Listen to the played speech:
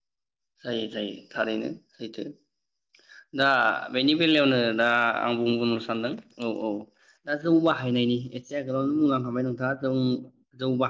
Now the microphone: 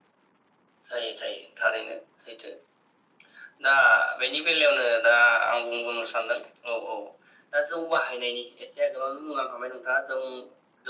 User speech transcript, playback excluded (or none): none